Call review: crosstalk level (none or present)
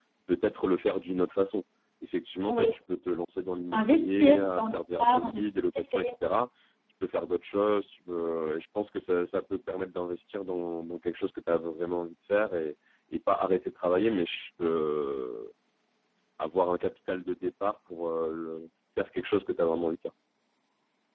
present